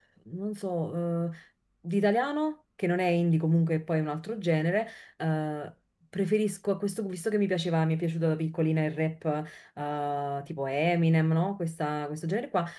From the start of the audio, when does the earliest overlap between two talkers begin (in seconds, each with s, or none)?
none